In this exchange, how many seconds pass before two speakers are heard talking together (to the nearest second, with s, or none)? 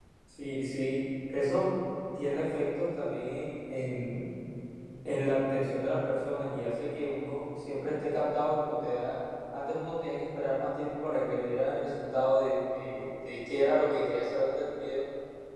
none